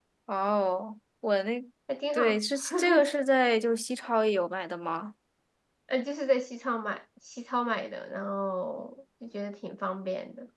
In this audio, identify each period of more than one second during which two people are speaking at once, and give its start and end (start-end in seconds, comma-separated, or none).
none